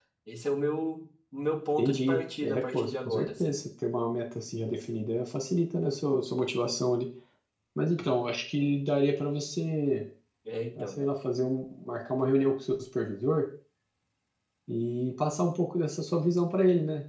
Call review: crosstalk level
present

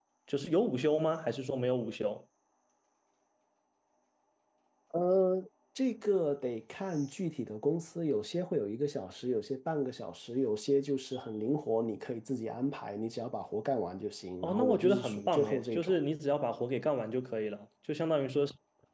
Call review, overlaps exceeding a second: present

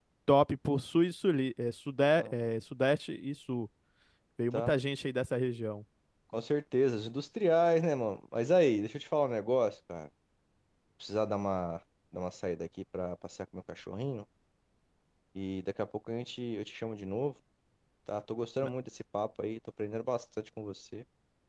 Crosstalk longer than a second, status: none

